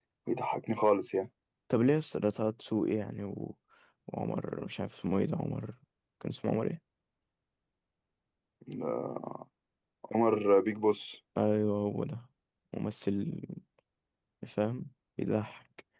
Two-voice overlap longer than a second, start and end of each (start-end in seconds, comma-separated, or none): none